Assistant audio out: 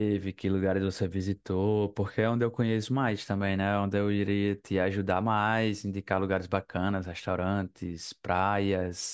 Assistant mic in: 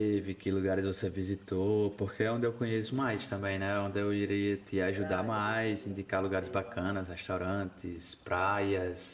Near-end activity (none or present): present